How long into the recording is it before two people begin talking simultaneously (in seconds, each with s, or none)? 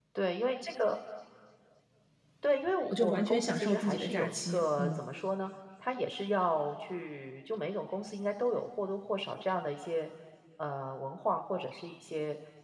2.8 s